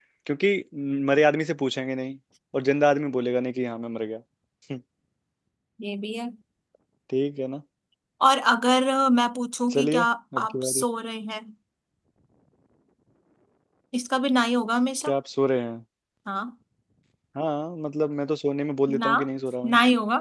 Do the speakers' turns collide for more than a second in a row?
No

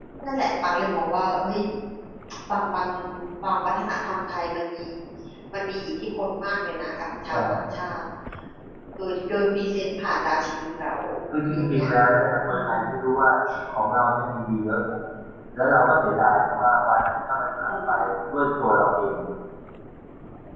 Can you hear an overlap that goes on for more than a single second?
No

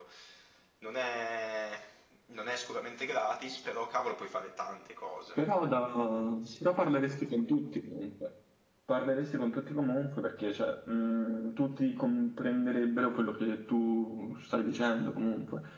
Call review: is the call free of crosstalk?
Yes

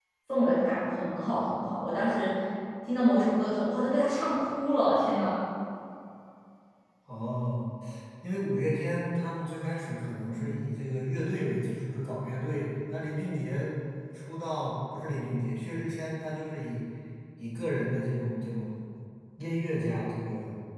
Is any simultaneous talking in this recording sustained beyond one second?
No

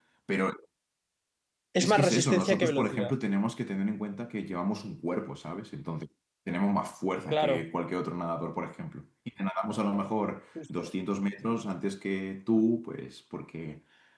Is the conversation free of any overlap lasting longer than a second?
No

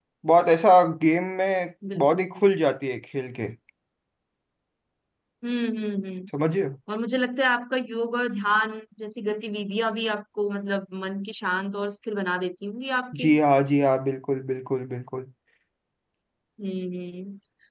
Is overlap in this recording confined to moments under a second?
Yes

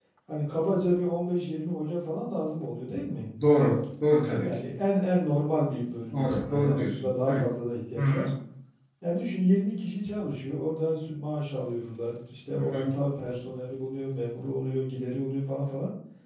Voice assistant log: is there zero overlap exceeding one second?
No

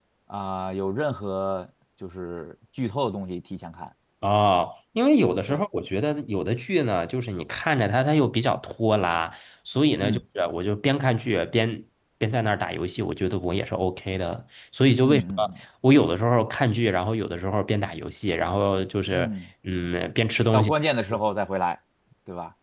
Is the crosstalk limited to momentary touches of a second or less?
Yes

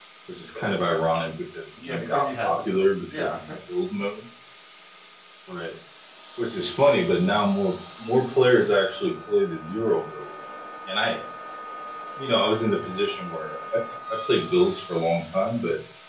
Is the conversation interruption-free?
No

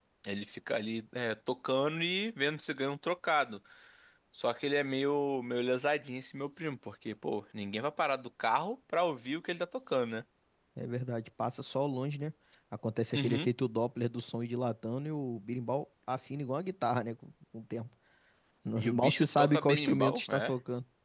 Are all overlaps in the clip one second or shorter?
No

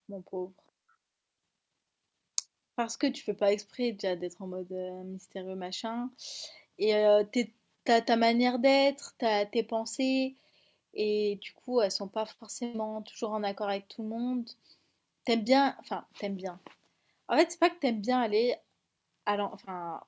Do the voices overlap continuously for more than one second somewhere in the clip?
No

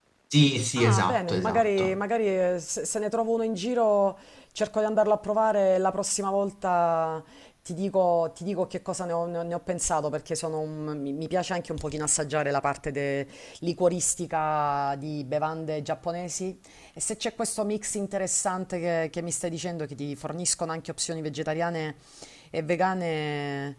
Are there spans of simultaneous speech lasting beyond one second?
Yes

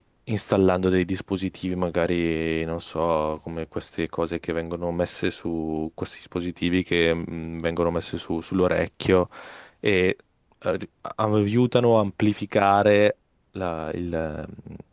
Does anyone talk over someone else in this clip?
No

